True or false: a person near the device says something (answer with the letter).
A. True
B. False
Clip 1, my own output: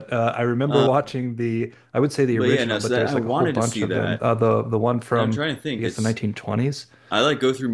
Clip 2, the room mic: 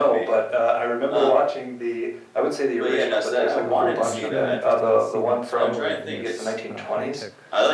A